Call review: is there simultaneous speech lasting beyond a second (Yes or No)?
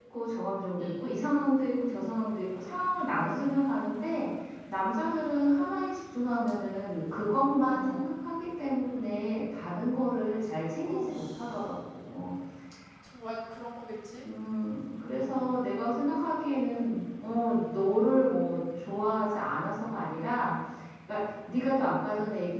No